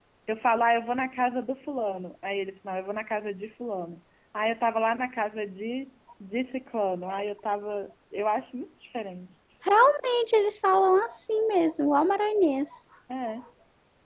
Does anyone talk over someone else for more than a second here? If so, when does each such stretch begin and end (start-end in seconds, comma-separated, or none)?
none